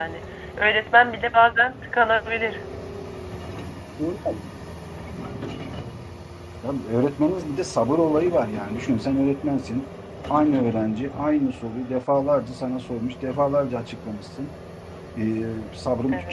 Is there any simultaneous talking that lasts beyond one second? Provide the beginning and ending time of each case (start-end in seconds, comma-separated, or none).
none